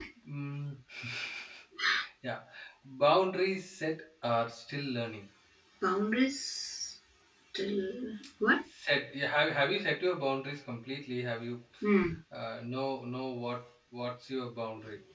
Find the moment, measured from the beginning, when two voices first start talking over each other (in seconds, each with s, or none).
none